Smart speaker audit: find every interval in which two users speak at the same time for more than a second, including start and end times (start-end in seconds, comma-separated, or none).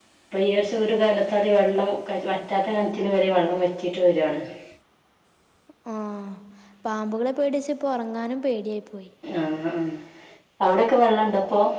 none